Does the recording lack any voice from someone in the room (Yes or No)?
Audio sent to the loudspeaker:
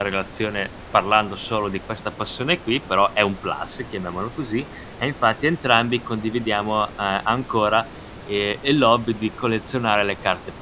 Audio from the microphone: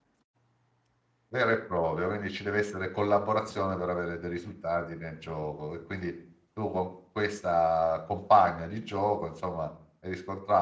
No